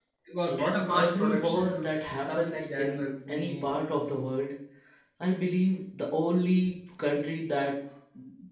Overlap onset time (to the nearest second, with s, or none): 1 s